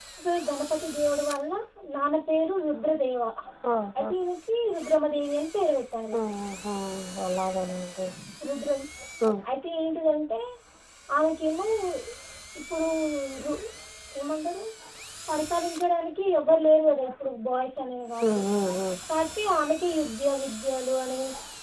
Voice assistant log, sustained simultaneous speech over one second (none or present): none